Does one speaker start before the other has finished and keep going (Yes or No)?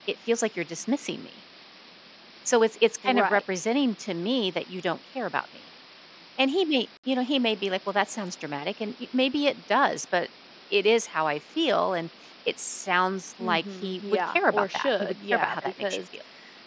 Yes